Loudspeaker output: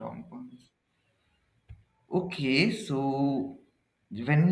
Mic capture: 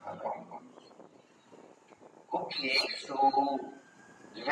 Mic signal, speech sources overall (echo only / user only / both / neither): echo only